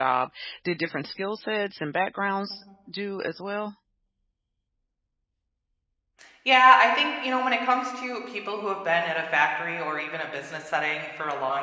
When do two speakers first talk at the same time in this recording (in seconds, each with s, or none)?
none